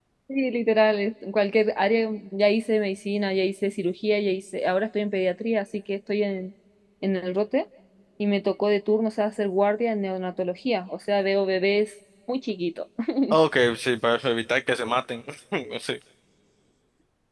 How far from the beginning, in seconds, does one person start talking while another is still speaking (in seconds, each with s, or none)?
none